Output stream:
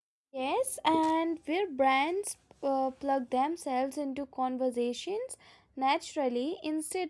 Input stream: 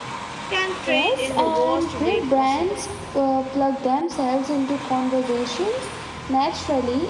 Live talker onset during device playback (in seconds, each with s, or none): 0.5 s